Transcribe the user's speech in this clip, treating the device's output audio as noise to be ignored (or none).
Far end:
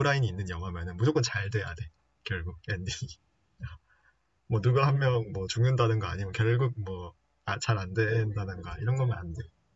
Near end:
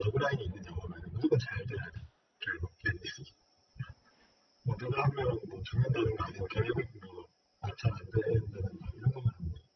none